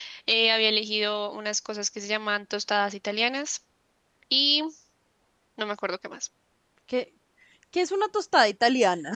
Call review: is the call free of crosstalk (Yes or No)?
Yes